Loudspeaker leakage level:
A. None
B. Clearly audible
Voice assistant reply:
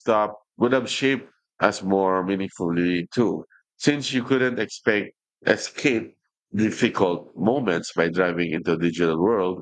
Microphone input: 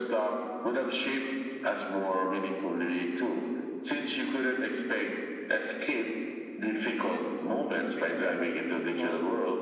B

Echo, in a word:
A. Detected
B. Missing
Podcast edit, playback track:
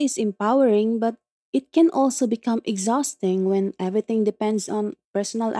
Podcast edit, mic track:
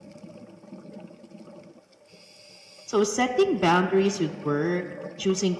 B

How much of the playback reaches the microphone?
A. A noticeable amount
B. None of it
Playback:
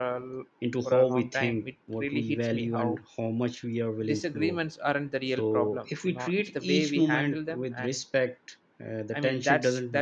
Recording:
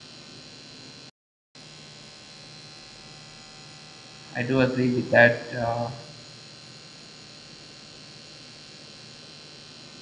B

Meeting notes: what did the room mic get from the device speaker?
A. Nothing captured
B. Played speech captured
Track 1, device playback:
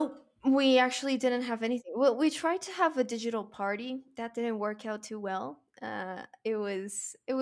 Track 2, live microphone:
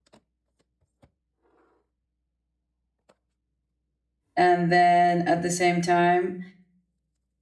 A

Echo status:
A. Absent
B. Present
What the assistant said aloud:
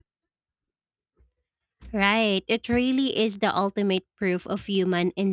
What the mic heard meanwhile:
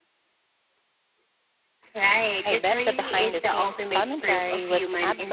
B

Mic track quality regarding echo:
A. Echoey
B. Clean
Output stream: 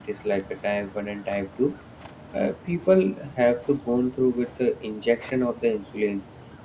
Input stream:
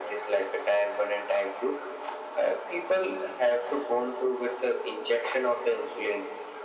A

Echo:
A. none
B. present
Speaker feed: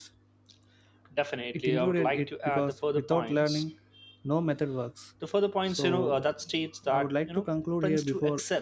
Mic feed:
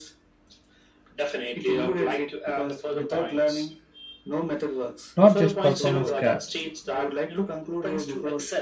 B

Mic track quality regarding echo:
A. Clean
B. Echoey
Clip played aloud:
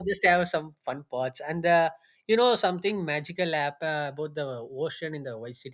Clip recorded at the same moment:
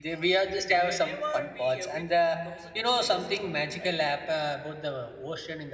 B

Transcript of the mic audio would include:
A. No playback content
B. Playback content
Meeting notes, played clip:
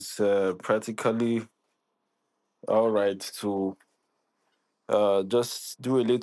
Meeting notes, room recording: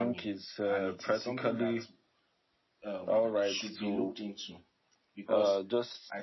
B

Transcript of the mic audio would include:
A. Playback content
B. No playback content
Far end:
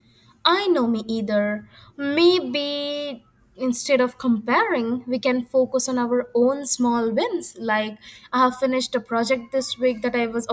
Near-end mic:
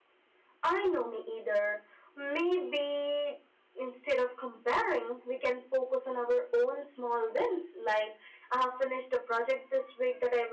A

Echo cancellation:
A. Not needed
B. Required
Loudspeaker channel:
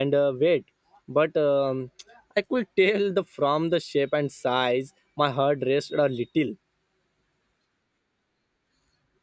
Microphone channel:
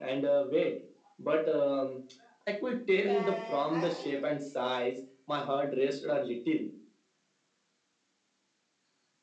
B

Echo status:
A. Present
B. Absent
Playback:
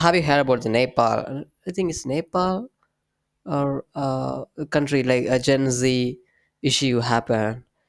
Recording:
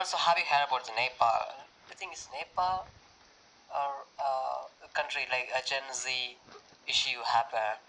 A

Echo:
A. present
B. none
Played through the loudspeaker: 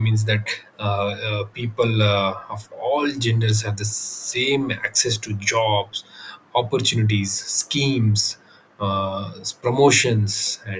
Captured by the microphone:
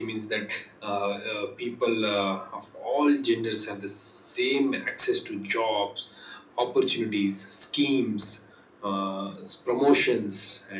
A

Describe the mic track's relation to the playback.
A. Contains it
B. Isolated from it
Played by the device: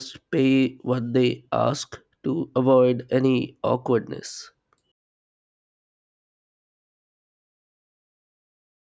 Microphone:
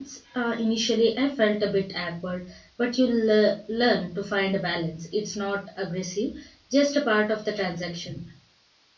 B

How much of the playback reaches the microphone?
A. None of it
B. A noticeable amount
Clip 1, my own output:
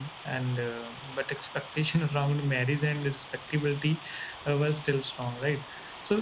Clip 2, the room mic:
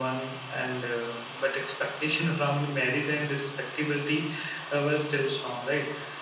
B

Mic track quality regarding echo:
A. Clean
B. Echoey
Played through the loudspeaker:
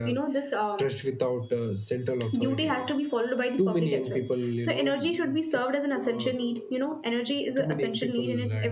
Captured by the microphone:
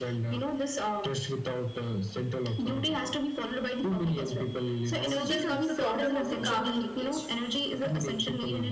B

